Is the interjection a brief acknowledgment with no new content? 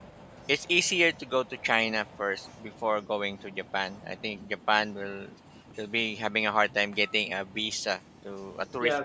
No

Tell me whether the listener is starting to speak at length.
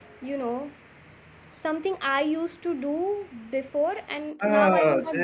Yes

